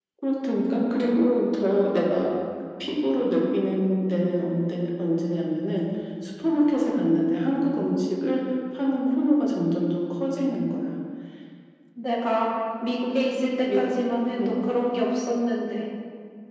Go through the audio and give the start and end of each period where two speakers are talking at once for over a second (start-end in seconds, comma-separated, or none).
none